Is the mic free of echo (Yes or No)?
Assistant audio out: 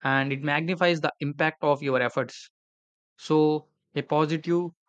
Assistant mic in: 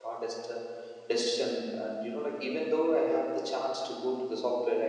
Yes